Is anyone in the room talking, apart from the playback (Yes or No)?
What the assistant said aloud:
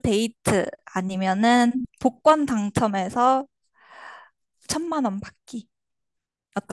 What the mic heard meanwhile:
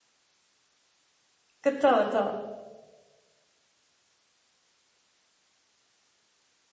Yes